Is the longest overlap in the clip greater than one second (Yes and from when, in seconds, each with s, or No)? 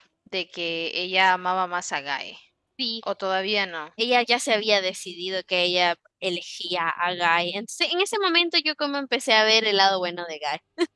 No